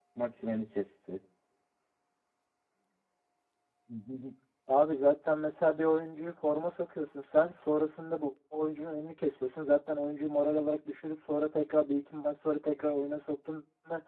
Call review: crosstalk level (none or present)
none